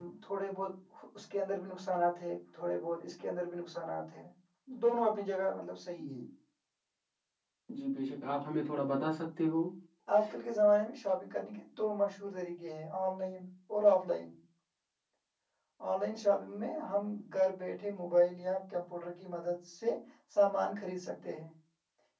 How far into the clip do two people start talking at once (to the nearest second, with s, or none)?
none